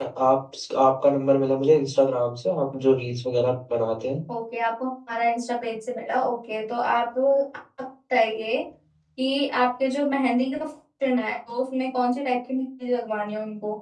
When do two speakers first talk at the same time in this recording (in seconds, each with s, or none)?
none